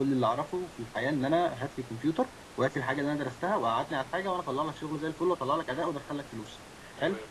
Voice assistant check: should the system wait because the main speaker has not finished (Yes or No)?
Yes